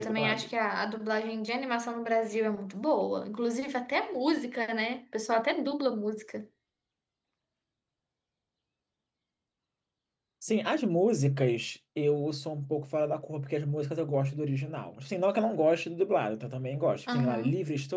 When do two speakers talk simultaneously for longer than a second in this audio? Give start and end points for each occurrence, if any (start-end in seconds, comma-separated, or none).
none